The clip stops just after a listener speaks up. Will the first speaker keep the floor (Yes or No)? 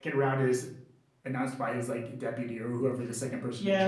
No